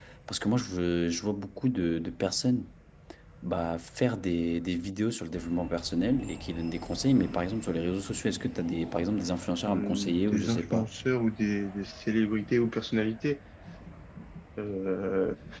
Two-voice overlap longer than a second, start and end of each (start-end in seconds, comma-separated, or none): 9.6-10.9